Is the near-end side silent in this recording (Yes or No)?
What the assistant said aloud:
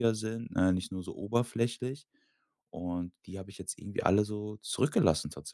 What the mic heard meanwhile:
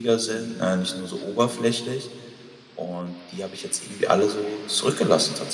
No